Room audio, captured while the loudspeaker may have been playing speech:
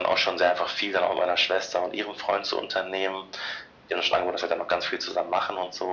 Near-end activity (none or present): none